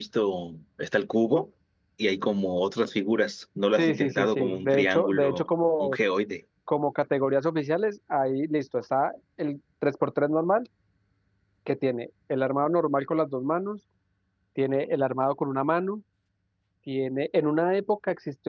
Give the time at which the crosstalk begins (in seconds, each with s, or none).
3.8 s